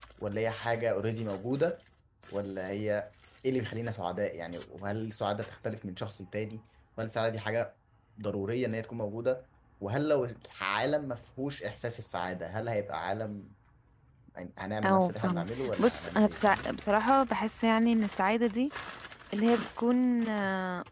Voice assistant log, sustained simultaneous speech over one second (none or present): present